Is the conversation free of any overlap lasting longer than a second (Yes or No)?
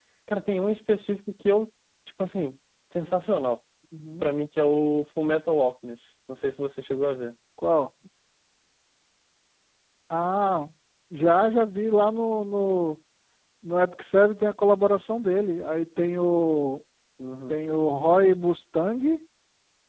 Yes